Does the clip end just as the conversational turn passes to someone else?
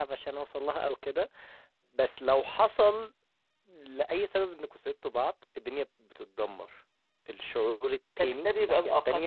Yes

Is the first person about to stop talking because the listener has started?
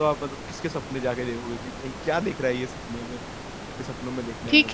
Yes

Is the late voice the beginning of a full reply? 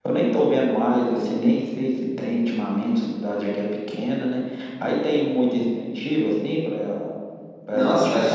Yes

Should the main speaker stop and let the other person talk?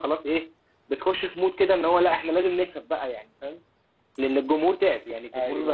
No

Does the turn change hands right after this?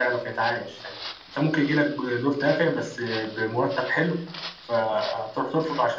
No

